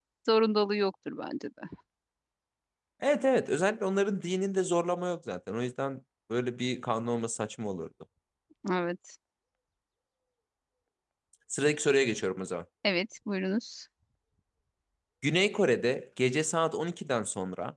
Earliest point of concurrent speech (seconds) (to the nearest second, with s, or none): none